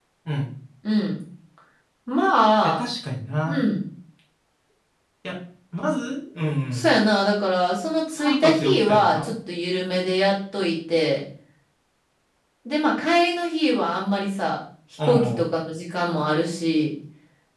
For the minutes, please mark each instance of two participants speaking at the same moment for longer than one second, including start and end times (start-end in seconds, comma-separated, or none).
8.1-9.3